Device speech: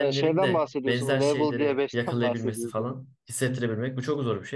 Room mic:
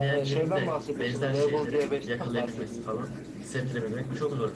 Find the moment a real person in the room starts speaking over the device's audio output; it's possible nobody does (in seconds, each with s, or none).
none